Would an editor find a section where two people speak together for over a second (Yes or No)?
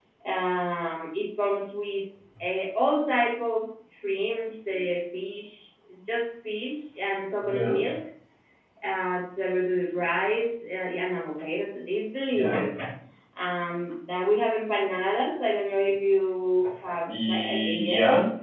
Yes